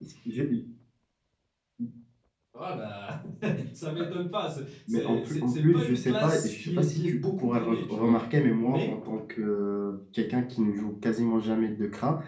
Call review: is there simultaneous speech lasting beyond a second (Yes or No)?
Yes